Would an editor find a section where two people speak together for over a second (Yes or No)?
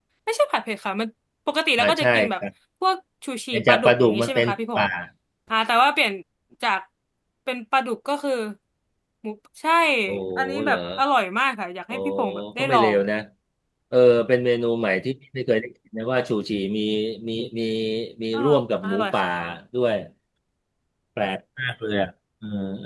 Yes